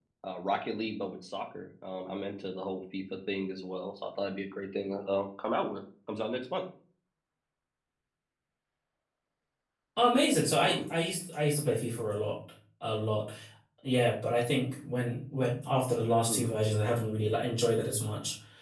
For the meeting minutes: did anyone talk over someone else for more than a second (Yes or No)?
No